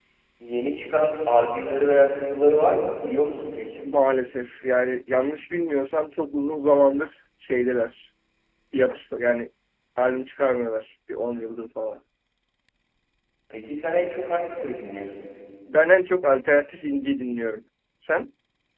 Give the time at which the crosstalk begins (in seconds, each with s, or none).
none